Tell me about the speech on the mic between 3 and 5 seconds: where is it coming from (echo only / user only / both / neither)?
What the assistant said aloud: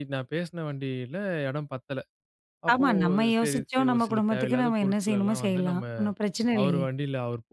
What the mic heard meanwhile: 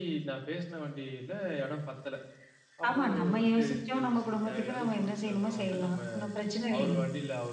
echo only